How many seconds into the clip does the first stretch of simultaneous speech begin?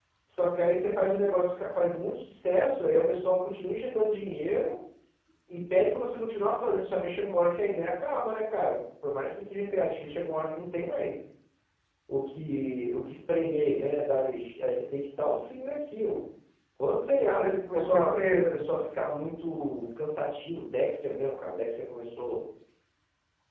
17.2 s

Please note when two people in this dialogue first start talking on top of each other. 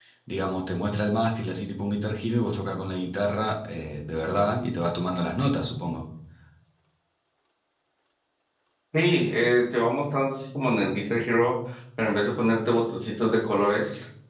none

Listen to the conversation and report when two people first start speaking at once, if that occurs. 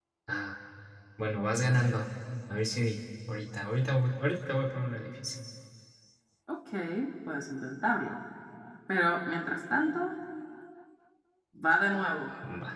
none

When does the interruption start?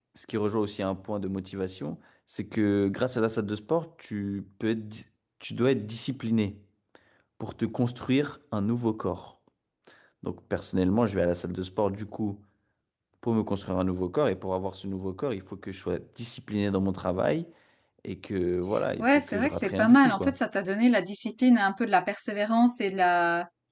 19.0 s

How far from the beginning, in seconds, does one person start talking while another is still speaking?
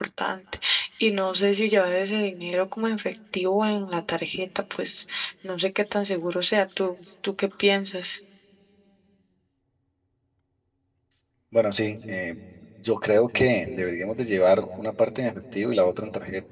none

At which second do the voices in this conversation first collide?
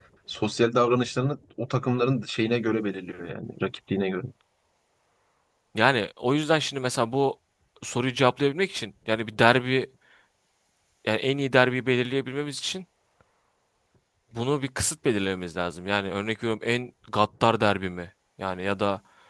none

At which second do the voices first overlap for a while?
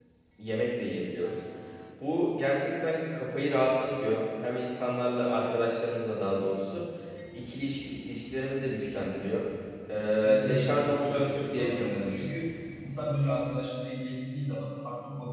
10.2 s

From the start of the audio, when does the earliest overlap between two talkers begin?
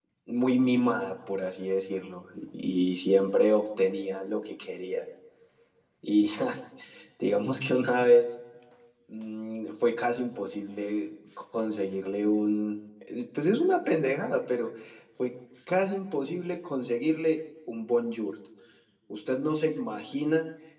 none

